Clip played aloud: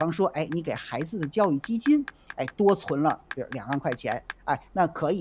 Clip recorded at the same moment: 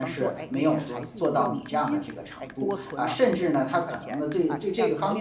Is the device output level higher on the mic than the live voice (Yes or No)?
No